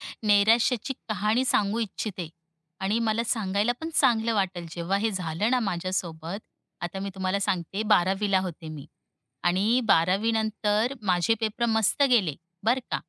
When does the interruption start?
none

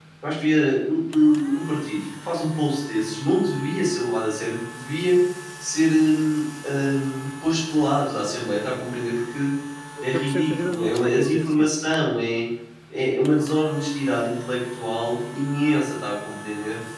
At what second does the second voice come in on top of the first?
10.0 s

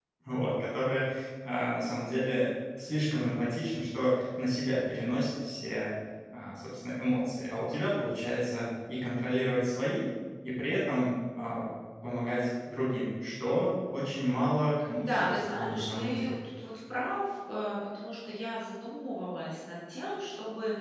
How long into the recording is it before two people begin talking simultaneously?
14.9 s

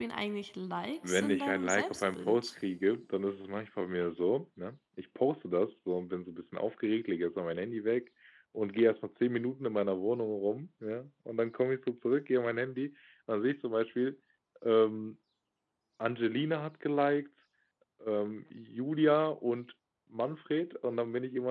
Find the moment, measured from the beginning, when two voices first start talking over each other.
1.1 s

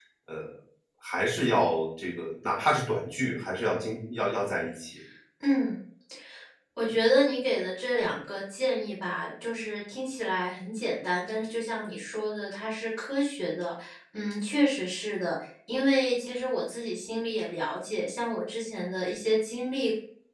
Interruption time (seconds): none

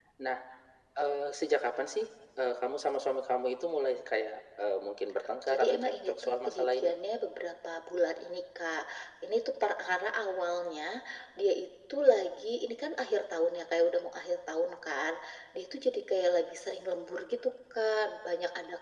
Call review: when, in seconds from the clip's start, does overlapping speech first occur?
5.5 s

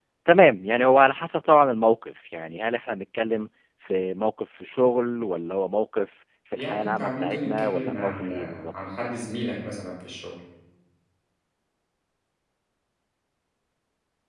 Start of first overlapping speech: 6.6 s

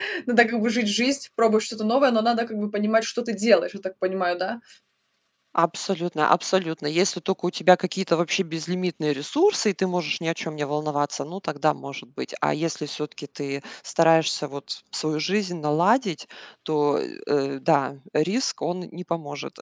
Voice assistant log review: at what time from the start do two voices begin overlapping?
none

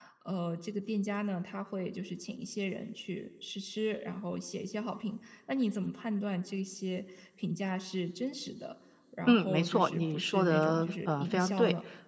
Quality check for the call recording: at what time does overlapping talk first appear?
9.2 s

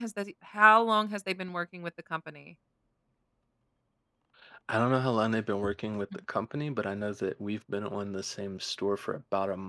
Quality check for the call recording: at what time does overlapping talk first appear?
none

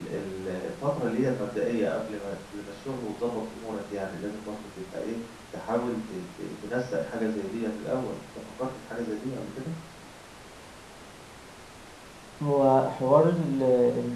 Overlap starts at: none

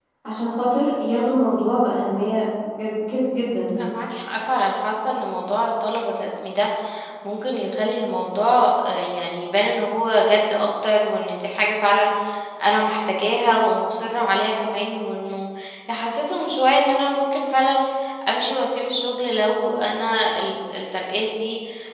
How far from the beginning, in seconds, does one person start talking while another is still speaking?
none

